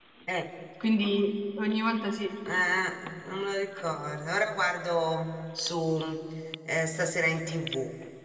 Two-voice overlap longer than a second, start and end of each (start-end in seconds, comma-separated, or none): none